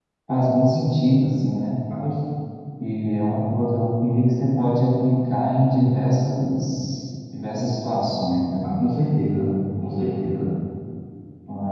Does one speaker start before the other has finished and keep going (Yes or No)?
No